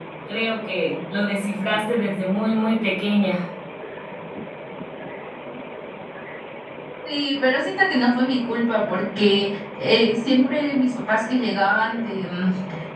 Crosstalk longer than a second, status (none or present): none